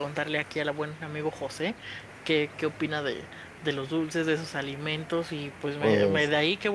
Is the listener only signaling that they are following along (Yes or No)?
Yes